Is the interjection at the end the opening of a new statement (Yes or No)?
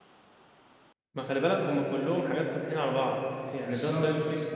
No